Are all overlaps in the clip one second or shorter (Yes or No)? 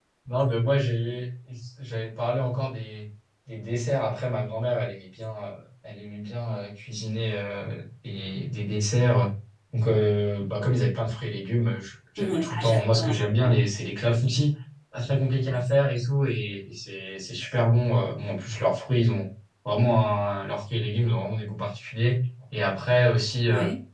No